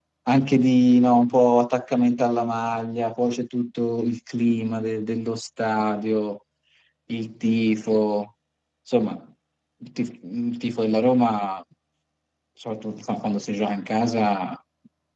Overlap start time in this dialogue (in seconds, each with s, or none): none